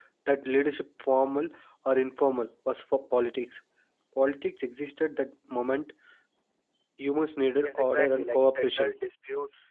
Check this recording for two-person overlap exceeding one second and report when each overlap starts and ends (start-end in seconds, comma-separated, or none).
7.6-8.9